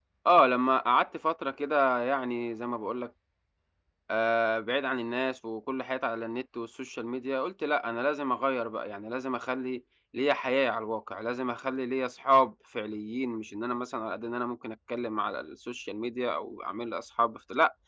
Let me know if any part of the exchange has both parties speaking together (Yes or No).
No